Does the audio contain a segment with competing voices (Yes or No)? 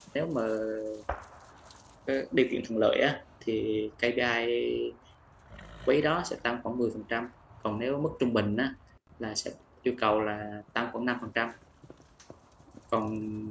No